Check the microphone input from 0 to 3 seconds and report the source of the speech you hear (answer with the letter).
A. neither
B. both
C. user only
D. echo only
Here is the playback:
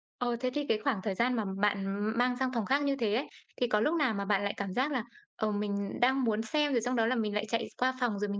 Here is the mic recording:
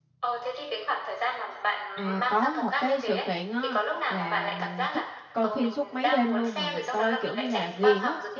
B